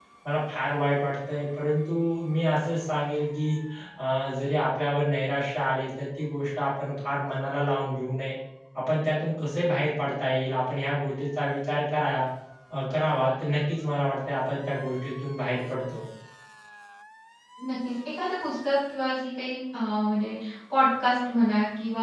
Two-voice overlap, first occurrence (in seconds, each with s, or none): none